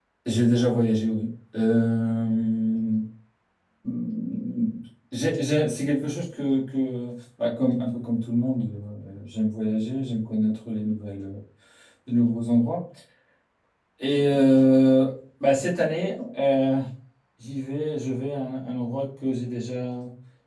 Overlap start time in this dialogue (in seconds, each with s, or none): none